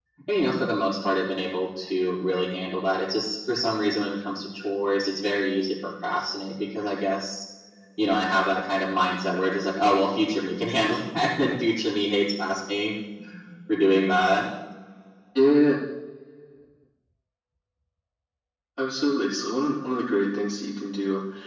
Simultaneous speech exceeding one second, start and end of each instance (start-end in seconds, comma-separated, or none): none